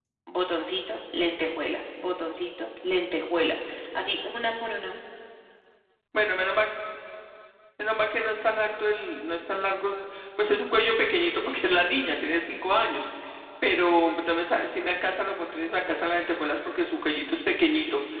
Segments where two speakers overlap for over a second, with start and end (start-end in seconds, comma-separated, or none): none